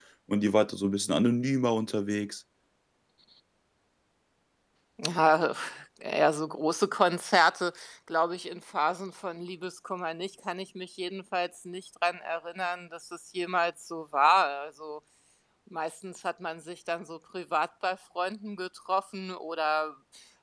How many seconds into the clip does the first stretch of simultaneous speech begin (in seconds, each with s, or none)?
none